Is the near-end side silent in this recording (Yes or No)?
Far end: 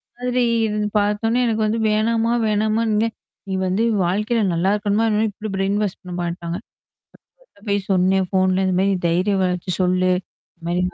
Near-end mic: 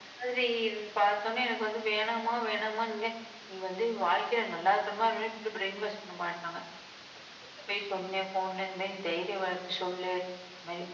Yes